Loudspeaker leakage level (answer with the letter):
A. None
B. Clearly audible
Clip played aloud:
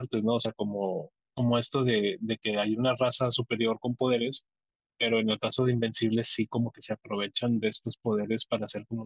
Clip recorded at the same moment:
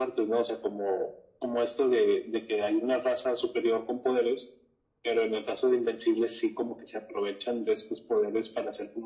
B